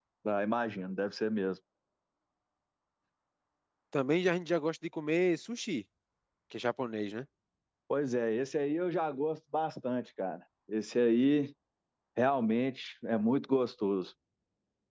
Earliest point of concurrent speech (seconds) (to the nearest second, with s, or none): none